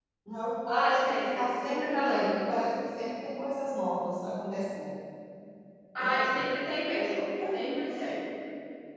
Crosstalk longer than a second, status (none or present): present